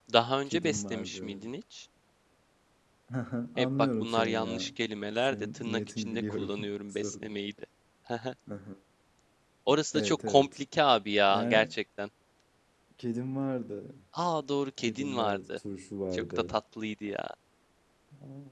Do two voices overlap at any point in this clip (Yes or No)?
Yes